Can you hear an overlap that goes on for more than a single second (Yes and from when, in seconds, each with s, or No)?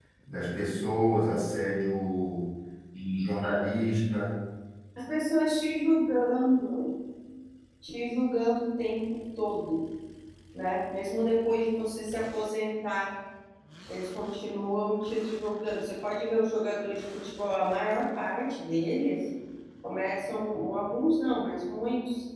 No